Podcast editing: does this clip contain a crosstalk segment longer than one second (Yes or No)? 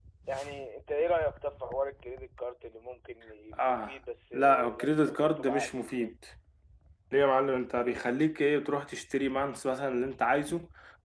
Yes